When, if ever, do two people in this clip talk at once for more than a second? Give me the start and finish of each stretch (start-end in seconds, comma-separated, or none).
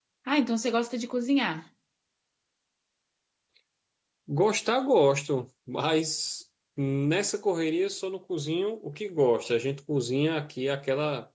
none